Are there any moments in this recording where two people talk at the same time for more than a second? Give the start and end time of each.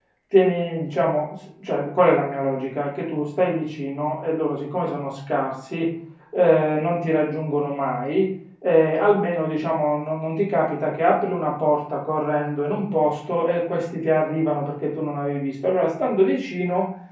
none

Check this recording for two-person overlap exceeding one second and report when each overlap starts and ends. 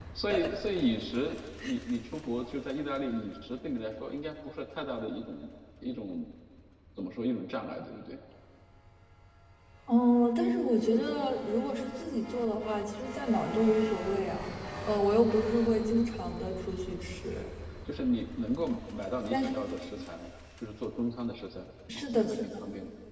none

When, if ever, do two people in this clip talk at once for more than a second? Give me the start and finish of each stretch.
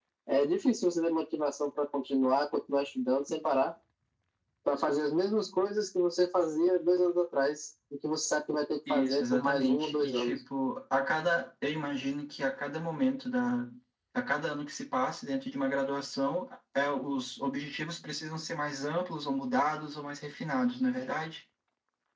8.9-10.3

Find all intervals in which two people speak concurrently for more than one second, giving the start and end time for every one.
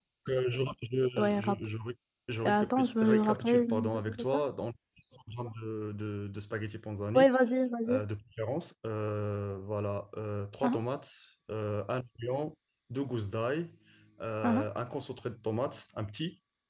2.5-4.4

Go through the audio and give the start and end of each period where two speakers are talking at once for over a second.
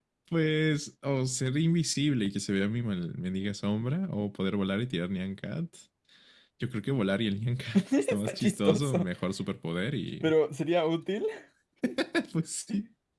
7.7-9.1

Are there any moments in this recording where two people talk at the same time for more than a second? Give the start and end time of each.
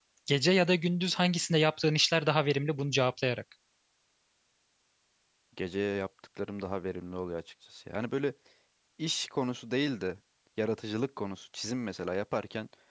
none

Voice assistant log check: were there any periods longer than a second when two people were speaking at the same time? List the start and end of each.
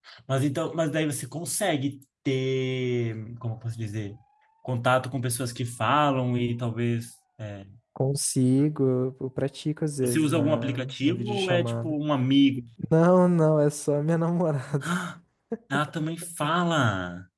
10.0-11.9

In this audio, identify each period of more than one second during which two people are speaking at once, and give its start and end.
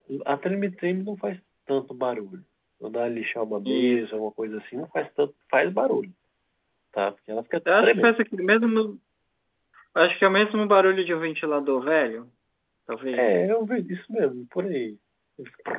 none

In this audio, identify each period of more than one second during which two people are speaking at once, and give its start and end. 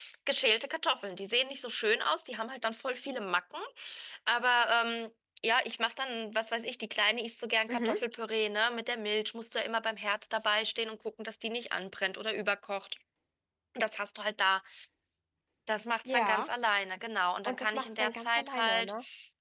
17.4-18.9

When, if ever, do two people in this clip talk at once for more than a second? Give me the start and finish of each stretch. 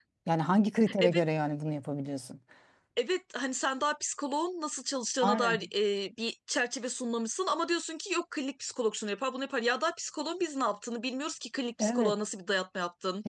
none

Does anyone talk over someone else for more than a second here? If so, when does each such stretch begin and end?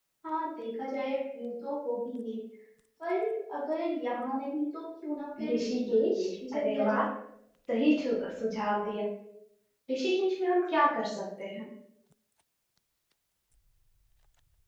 5.5-7.0

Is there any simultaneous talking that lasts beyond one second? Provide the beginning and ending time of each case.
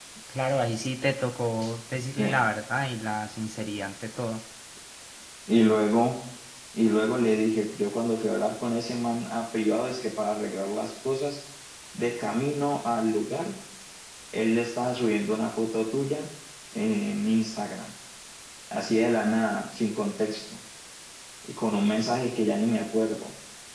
none

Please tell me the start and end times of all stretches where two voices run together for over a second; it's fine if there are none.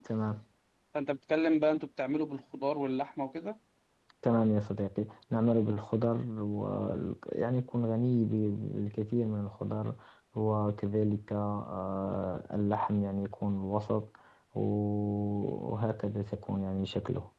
none

